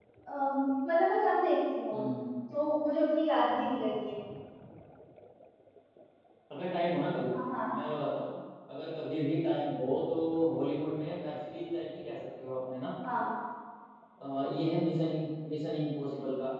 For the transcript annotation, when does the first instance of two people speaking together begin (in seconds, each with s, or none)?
none